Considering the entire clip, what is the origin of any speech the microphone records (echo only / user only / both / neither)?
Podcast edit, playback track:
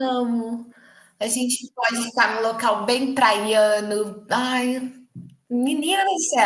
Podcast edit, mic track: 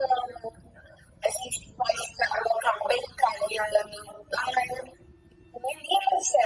echo only